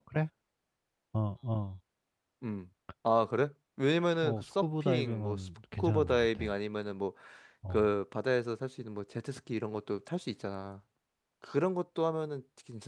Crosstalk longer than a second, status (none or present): present